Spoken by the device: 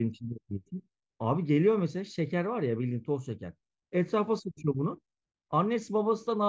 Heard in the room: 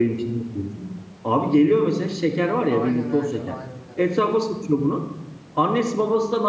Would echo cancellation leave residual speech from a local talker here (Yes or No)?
Yes